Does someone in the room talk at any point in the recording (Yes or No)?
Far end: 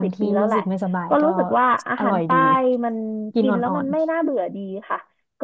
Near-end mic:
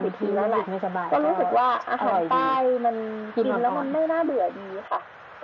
No